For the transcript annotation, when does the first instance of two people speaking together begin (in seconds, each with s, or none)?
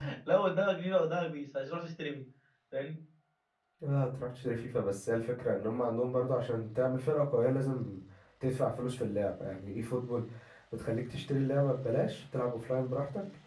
none